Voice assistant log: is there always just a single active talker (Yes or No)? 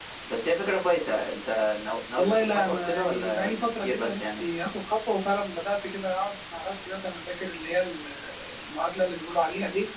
No